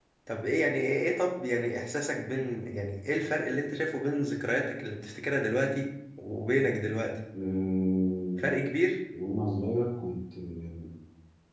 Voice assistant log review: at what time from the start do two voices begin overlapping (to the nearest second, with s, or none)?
none